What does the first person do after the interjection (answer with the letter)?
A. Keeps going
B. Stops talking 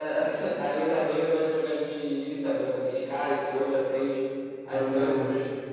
B